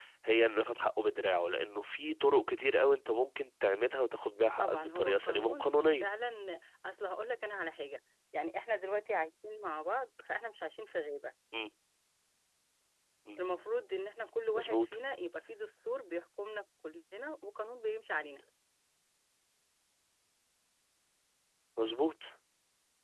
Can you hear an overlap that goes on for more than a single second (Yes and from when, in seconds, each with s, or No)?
Yes, from 4.6 s